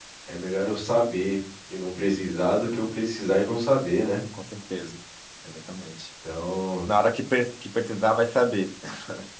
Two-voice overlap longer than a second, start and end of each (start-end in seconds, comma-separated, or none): none